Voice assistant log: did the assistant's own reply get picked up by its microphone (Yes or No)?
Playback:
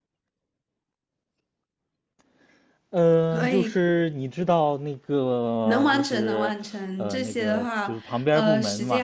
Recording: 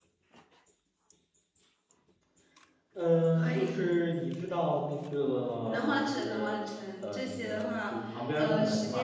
Yes